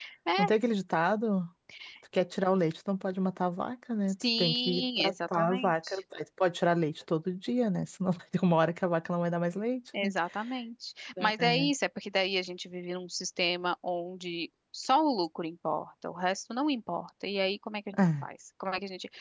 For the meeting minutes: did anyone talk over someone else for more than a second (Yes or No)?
Yes